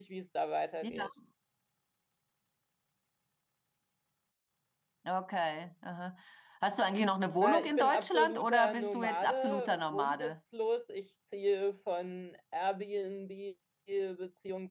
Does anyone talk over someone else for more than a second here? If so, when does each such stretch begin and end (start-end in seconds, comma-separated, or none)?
7.4-10.3